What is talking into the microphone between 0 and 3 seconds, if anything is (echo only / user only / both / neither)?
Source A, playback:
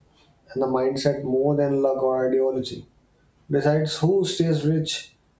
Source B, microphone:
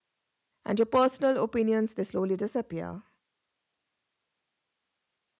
user only